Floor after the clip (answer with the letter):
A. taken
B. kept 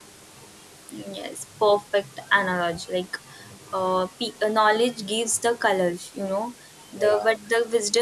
B